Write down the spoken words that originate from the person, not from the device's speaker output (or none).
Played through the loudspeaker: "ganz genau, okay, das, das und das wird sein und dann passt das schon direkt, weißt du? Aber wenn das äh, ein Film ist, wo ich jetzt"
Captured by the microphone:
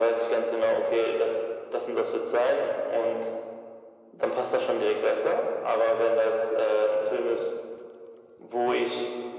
none